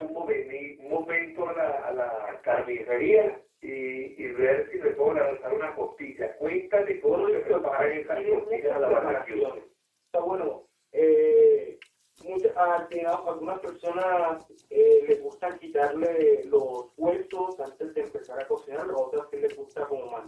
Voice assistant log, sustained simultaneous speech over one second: present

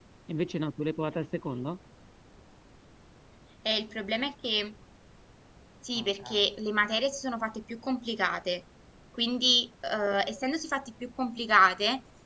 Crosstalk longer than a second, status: none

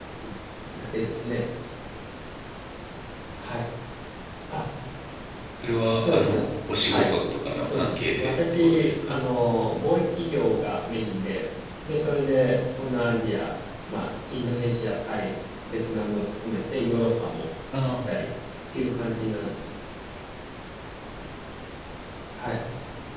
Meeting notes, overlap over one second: present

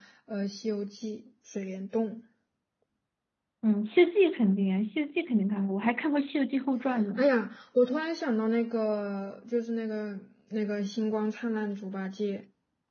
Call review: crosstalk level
none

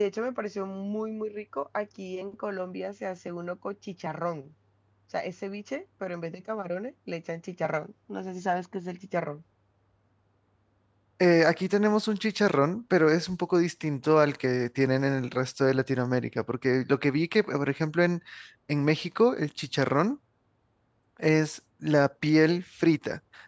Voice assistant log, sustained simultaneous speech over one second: none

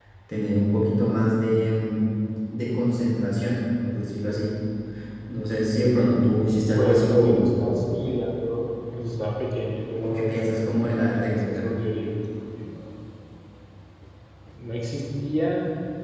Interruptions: present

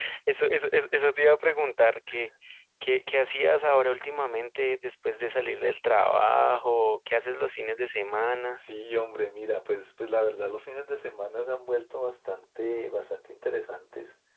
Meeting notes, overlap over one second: none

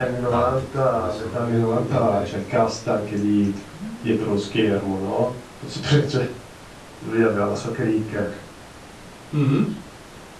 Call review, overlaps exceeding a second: present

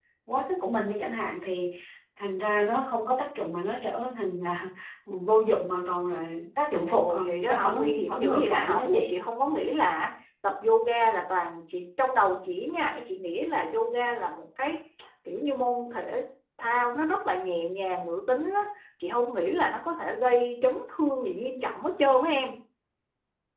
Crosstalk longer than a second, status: present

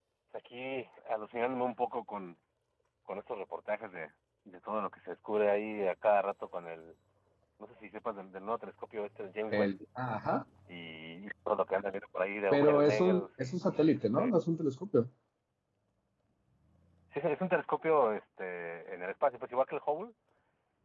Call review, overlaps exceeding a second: present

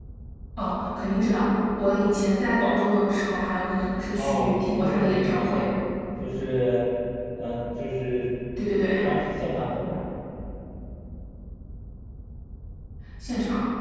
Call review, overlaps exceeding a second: present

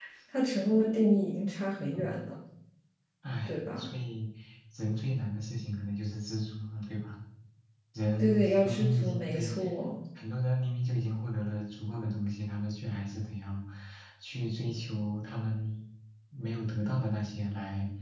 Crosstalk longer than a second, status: present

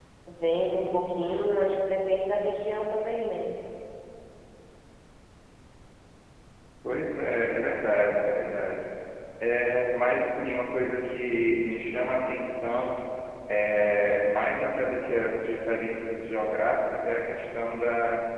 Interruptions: none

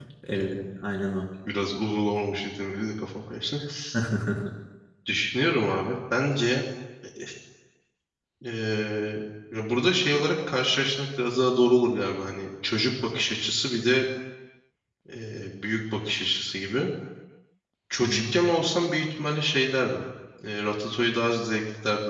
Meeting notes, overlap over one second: none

